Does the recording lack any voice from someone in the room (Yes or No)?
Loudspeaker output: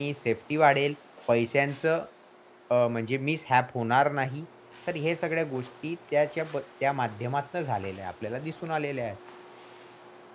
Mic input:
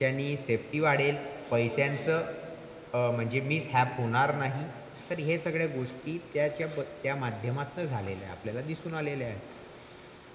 No